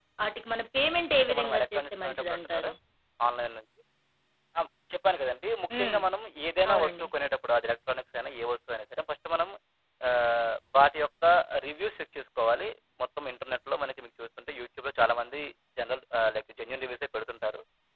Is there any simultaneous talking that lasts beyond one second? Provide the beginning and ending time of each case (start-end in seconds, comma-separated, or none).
1.3-2.7